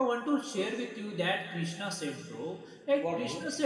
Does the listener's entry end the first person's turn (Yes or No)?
No